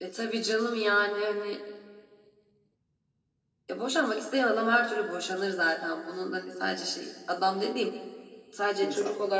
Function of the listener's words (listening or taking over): listening